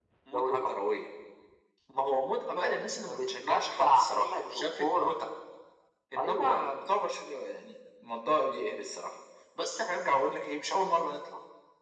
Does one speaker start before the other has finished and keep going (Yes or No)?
Yes